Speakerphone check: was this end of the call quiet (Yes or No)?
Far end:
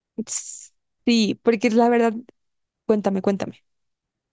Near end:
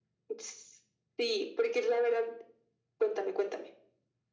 Yes